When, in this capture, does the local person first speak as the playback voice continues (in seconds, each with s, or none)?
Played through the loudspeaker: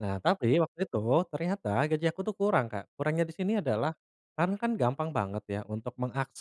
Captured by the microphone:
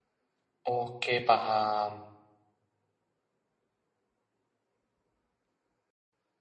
0.6 s